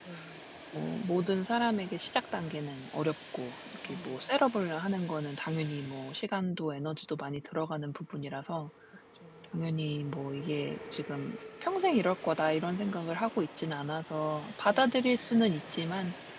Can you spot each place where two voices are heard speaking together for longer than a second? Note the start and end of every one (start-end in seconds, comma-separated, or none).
none